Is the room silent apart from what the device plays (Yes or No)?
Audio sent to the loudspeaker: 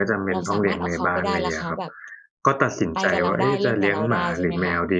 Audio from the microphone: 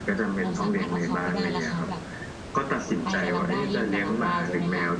Yes